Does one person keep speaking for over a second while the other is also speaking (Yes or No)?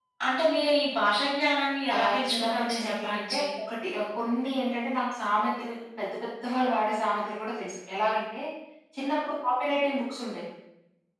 Yes